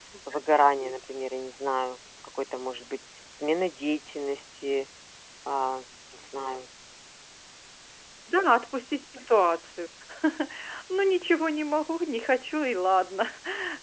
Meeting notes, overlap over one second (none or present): none